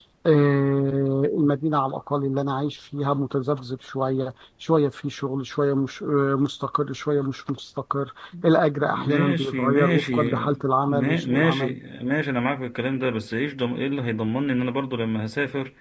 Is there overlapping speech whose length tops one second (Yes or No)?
Yes